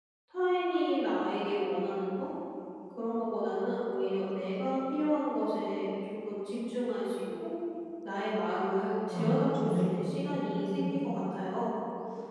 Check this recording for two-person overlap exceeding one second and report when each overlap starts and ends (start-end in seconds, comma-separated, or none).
9.1-11.2